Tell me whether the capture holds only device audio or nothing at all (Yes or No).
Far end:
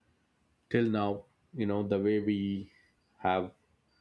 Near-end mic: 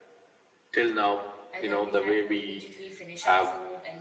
No